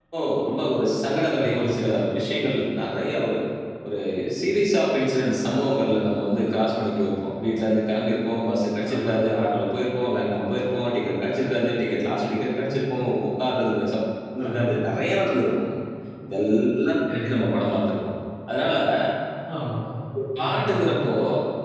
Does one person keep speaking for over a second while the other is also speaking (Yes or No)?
No